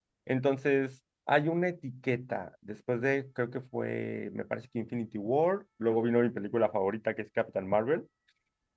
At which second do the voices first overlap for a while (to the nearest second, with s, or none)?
none